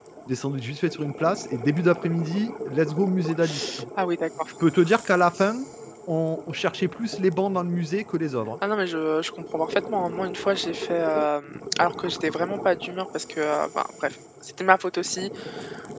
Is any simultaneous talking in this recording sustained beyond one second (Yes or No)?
No